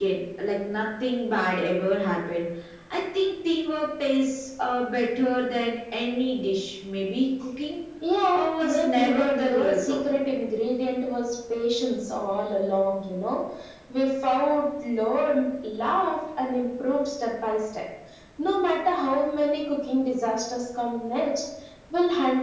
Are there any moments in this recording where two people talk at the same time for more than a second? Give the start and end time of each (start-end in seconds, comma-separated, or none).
8.3-10.2